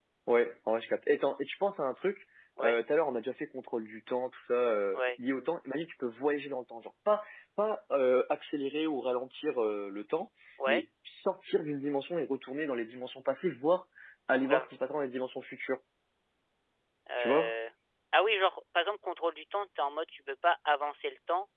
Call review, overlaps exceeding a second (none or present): none